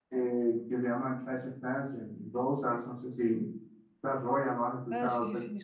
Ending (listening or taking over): taking over